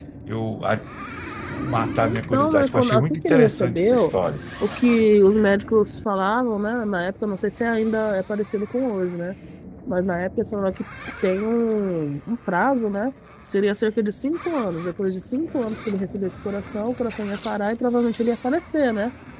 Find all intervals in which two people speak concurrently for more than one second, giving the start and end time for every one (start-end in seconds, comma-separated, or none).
2.0-4.1